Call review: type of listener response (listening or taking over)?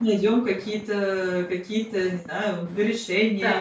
taking over